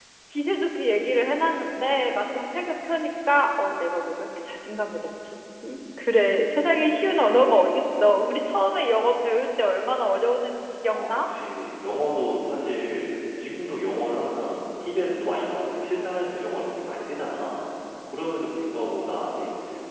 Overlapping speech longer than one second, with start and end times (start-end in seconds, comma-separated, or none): none